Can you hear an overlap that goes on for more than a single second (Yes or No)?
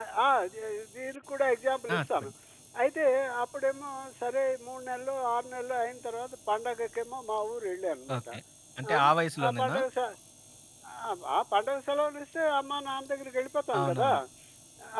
No